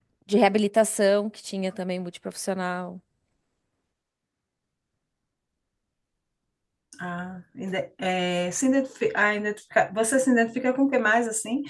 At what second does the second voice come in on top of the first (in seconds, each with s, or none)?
none